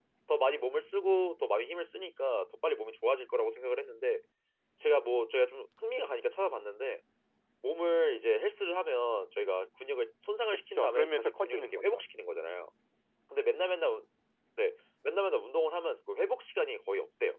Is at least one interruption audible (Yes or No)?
Yes